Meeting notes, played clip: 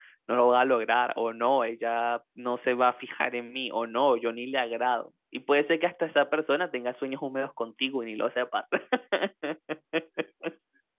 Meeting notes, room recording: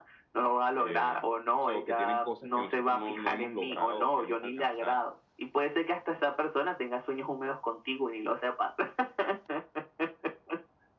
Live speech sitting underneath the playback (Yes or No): Yes